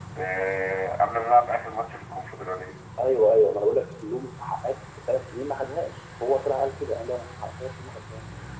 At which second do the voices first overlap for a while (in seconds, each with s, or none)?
none